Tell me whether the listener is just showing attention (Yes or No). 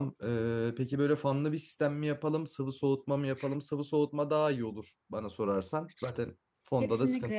No